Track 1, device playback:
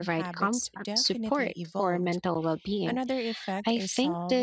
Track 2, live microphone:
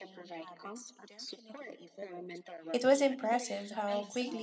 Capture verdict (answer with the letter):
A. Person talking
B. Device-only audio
A